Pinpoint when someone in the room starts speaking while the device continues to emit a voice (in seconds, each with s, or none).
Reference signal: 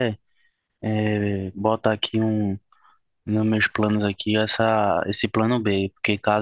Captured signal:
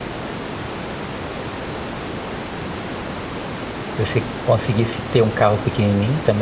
3.9 s